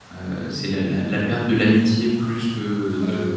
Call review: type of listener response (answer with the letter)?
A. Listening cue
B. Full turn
B